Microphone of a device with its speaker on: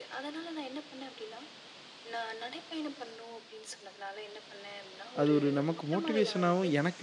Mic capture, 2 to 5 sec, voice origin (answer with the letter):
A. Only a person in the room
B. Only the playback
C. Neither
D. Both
B